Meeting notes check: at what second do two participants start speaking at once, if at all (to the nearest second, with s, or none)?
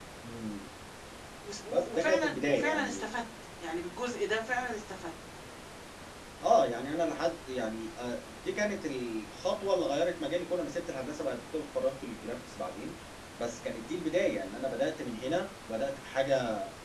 2 s